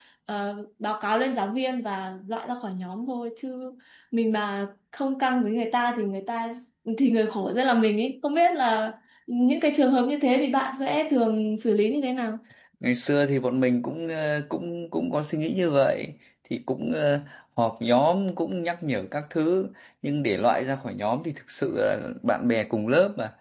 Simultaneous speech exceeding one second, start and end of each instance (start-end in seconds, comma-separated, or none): none